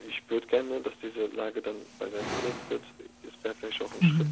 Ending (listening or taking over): listening